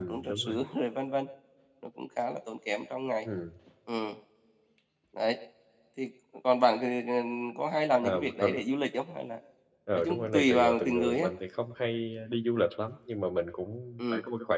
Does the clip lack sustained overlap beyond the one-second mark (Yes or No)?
No